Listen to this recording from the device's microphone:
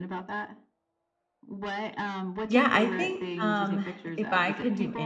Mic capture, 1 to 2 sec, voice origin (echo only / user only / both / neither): echo only